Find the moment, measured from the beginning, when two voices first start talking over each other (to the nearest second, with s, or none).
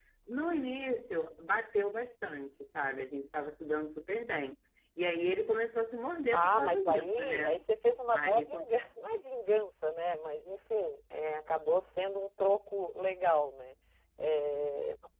6 s